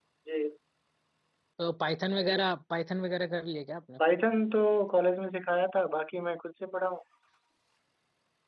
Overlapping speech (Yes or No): No